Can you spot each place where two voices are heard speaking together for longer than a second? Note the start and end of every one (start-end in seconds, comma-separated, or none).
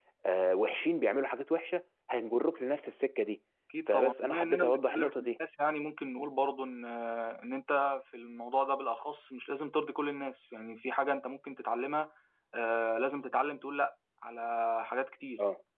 3.9-5.4